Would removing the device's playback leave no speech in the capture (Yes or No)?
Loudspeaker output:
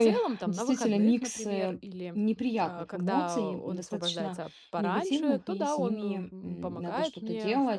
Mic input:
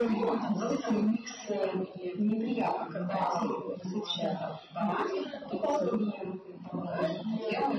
Yes